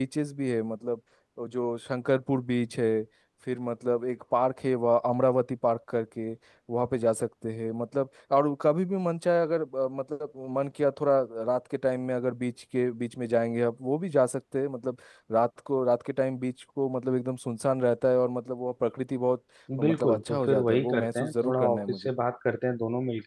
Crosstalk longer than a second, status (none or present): present